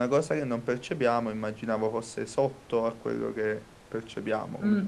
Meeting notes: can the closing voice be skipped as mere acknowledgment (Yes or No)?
No